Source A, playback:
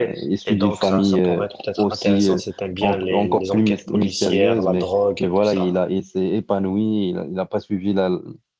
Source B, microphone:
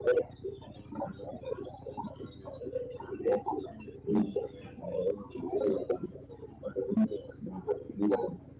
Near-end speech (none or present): none